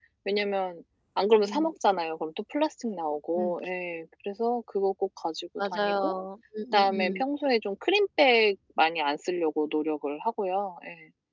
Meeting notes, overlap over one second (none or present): none